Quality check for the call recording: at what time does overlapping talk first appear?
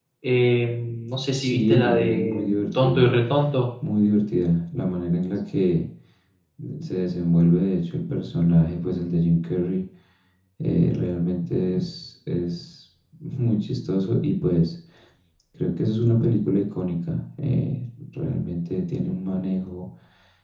1.4 s

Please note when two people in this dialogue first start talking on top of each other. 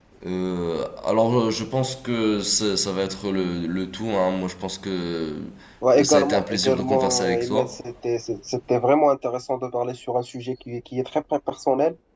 6.0 s

